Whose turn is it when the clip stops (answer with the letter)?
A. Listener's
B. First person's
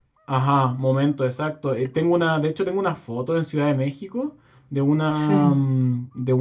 B